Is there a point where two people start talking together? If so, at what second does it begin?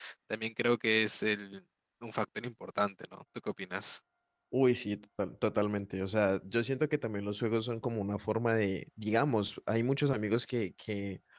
none

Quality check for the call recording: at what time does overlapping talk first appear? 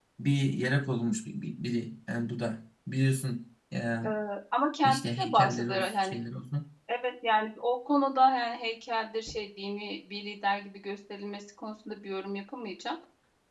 5 s

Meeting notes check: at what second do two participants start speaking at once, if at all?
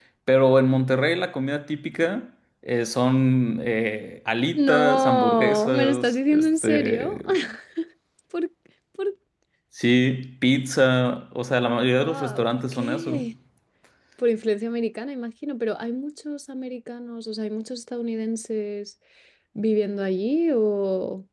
5 s

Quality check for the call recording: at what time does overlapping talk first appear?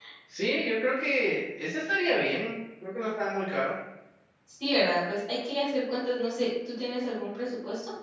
none

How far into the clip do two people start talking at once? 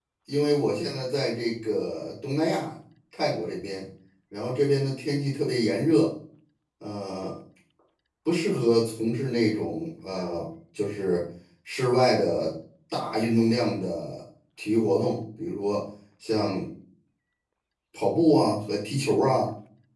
none

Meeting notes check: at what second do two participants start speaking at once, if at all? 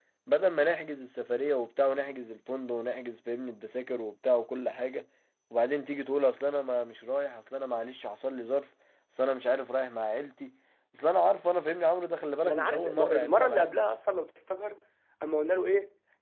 12 s

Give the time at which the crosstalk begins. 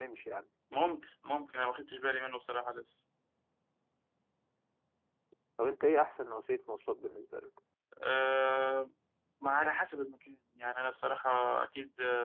none

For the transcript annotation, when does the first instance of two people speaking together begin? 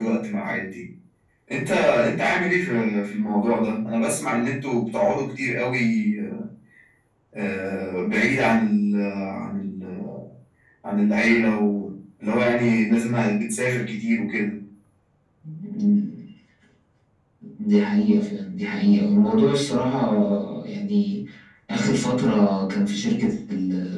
none

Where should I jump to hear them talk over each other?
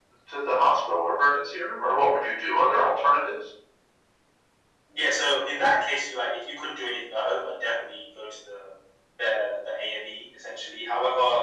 none

